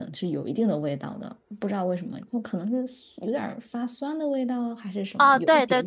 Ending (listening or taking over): taking over